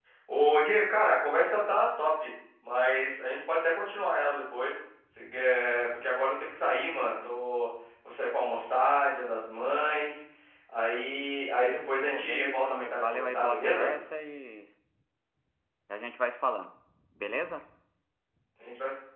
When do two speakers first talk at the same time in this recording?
12.0 s

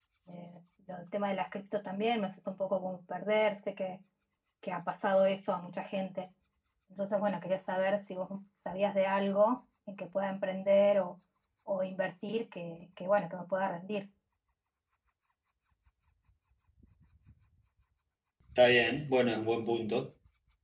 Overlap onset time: none

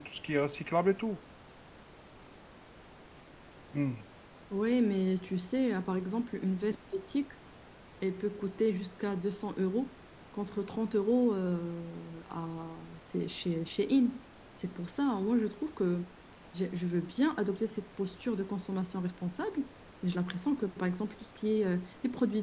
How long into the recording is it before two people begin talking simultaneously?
none

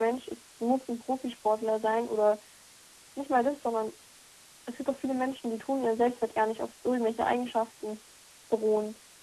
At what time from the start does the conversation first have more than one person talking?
none

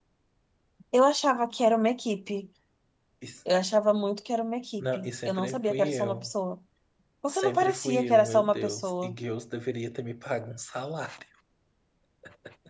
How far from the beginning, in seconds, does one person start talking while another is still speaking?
4.8 s

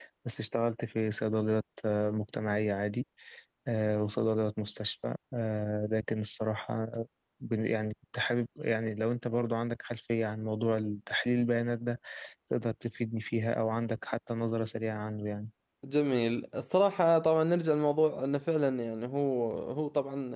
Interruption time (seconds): none

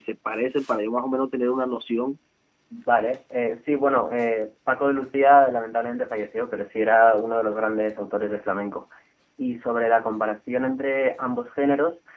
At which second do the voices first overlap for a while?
none

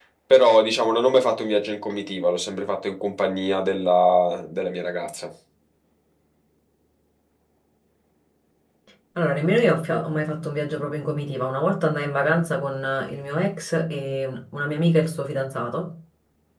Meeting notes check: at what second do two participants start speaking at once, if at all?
none

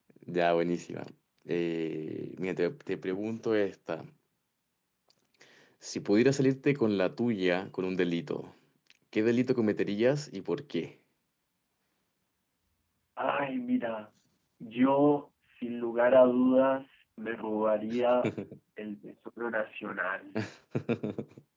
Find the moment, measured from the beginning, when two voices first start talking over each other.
none

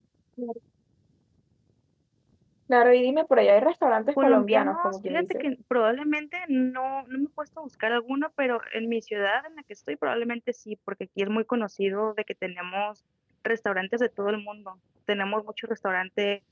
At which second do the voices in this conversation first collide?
4.2 s

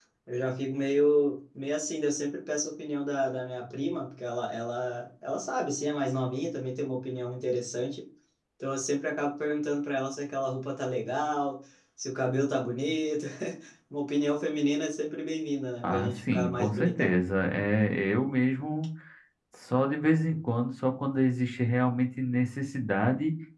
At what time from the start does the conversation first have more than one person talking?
15.8 s

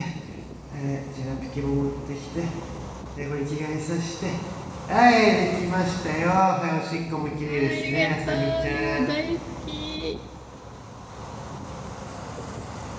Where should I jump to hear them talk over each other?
7.5 s

